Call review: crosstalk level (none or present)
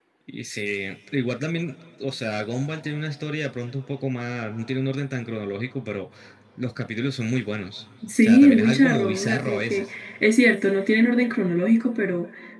present